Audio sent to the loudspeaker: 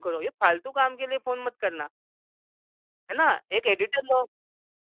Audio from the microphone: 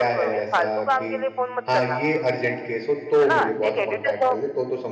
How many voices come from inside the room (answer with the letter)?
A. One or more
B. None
A